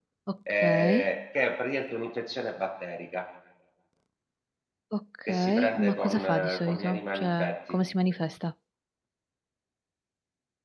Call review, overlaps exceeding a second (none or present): present